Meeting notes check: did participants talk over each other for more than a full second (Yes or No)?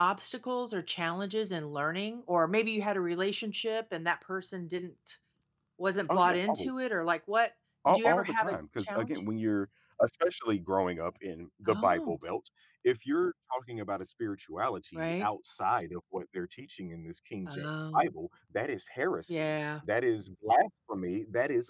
Yes